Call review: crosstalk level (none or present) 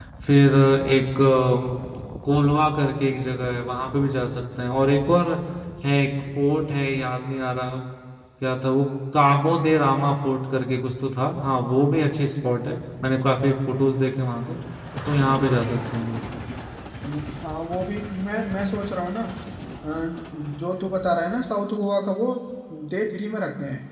none